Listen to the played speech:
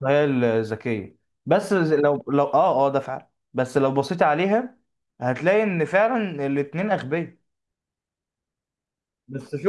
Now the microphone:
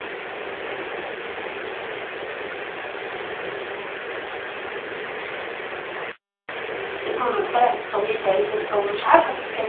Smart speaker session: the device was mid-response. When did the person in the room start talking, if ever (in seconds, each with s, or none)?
7.1 s